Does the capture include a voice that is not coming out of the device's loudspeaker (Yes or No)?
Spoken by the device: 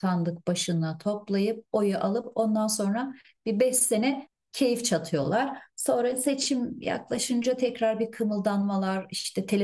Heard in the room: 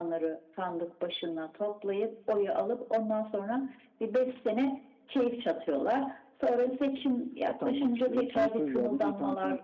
Yes